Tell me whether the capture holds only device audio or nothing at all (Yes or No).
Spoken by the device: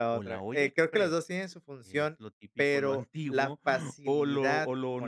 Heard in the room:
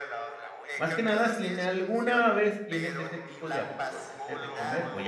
No